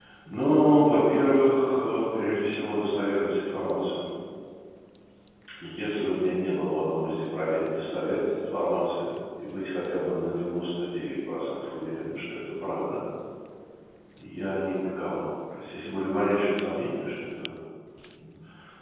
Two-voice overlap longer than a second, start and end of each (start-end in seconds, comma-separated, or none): none